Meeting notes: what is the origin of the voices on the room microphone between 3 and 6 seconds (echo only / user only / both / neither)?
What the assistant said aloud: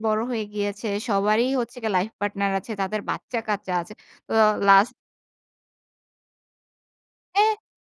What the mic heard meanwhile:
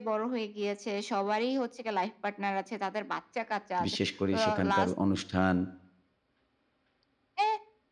both